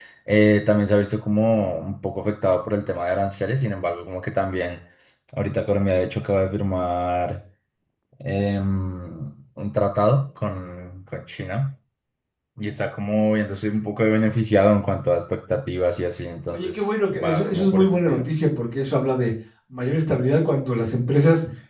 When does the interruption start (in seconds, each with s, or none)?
16.5 s